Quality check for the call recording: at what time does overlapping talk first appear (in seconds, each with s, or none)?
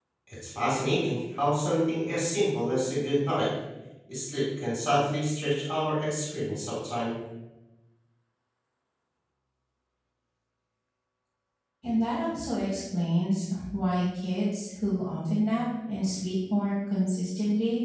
none